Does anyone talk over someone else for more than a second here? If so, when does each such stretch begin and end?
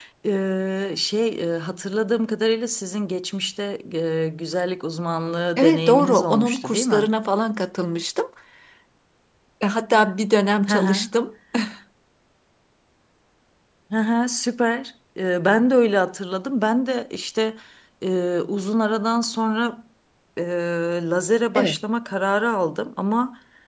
5.6-7.1

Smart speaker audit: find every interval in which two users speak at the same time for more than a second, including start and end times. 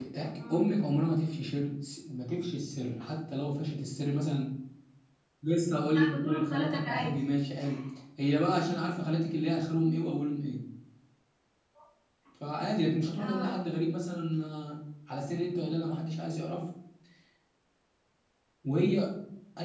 5.9-7.1

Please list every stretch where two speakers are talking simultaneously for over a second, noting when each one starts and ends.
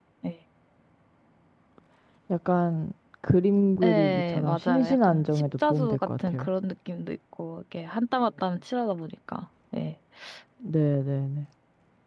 3.8-6.5

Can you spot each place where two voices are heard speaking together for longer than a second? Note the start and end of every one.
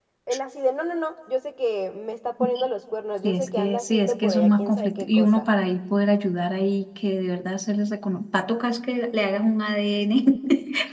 3.2-5.5

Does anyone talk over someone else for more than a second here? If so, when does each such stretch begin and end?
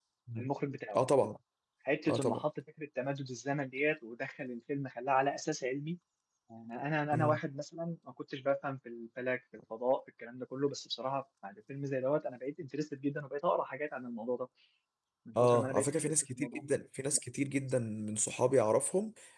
15.4-16.6

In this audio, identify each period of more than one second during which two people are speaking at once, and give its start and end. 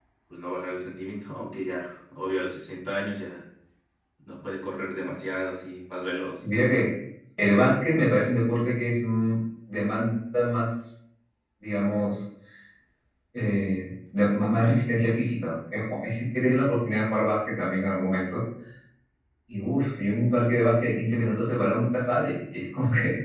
none

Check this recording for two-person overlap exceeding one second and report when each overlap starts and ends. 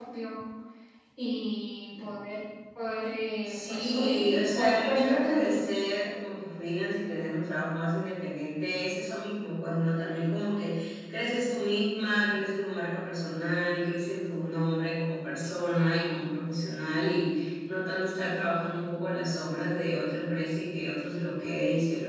3.5-5.6

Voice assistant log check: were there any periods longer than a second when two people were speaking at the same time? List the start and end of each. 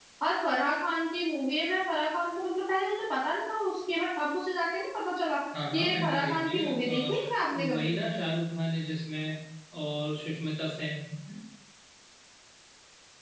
5.7-7.9

